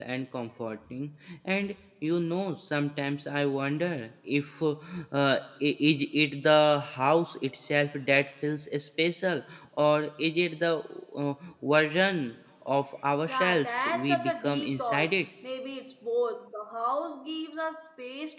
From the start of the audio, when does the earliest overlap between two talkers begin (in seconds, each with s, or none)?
13.3 s